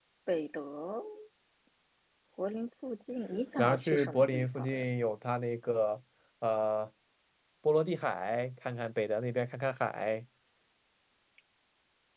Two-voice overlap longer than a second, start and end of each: 3.6-4.8

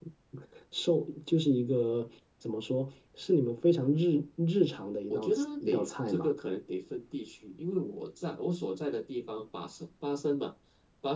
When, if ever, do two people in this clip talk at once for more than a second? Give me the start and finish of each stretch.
5.1-6.3

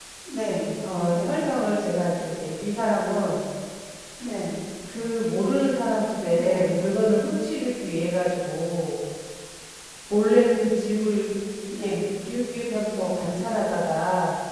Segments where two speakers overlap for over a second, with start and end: none

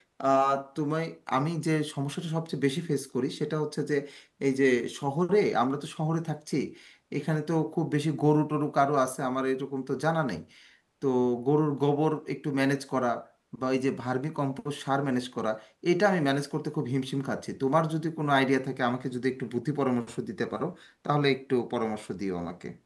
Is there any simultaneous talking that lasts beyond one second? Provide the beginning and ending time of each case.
none

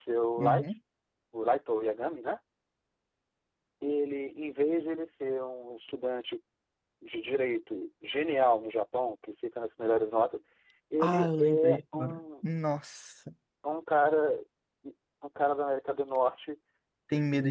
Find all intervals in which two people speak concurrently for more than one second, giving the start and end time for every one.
11.0-12.2

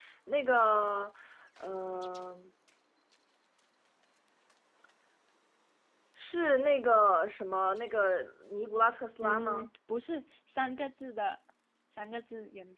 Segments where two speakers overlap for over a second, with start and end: none

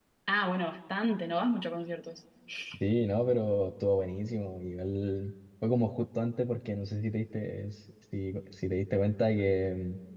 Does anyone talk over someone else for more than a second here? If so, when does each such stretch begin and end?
none

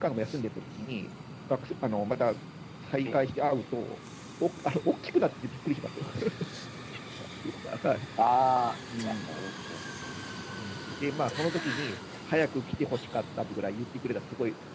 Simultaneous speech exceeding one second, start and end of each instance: none

